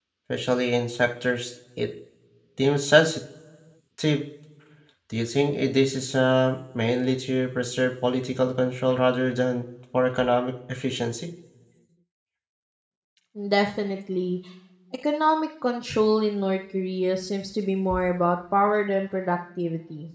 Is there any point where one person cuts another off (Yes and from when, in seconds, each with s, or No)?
No